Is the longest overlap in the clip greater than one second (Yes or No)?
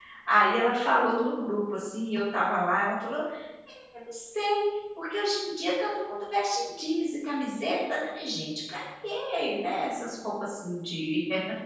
No